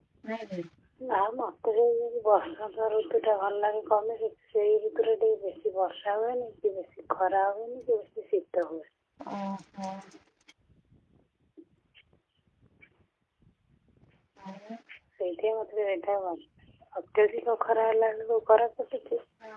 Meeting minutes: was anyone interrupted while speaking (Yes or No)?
No